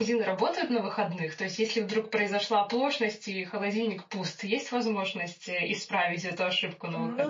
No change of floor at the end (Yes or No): No